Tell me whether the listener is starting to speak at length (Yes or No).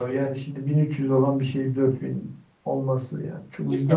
Yes